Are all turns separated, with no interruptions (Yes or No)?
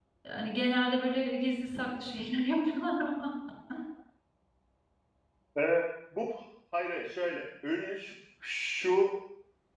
Yes